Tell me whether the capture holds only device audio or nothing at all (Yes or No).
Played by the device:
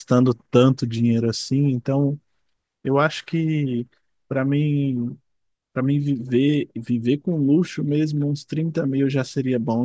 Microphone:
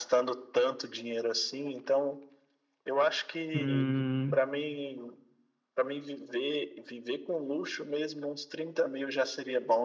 No